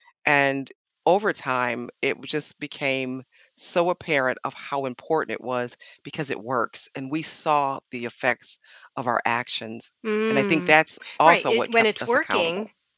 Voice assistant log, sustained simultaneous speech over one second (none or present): present